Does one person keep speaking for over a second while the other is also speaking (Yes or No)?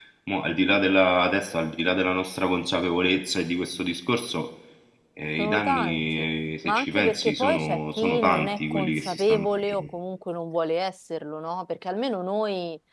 Yes